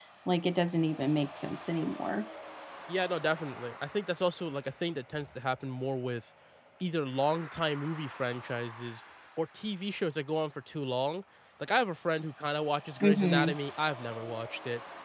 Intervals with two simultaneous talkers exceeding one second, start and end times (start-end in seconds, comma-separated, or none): none